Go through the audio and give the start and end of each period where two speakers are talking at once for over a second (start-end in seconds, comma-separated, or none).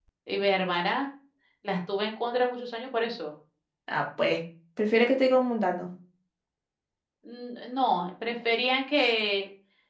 none